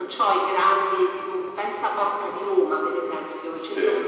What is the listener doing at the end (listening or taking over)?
listening